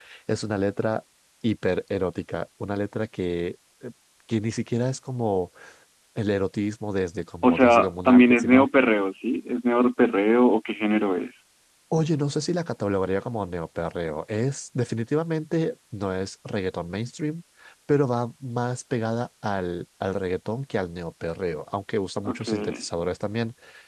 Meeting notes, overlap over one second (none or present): present